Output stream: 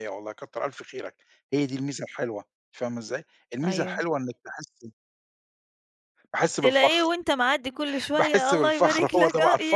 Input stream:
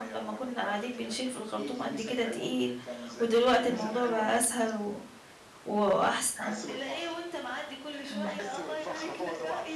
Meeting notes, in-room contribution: present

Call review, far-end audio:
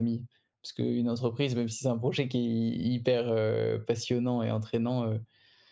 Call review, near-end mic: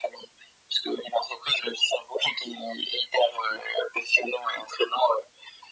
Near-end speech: none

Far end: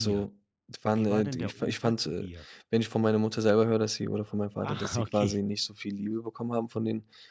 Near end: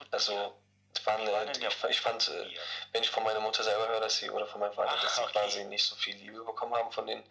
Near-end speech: none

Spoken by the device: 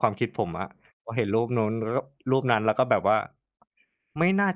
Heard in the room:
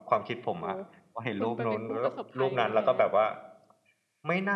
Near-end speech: present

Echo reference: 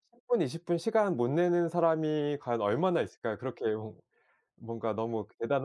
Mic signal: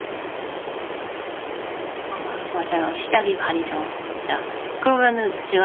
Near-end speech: present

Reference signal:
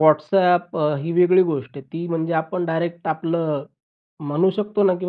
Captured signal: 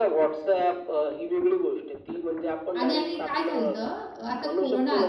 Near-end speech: present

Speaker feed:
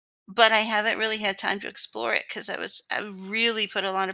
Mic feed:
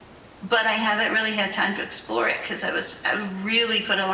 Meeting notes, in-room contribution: none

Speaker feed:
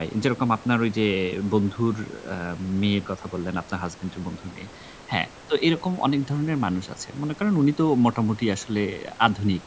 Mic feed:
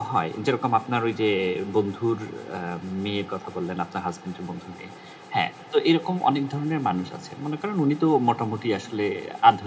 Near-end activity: none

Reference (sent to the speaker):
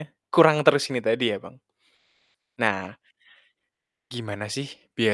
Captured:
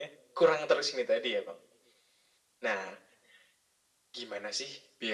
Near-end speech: none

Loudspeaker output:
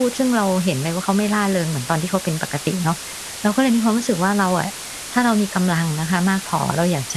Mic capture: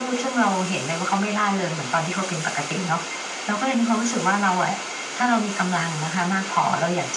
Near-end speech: none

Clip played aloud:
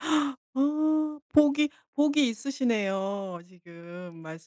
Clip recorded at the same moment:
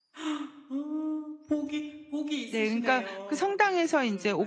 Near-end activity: present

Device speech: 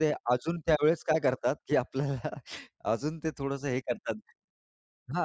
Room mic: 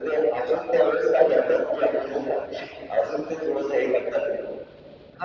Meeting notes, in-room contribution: none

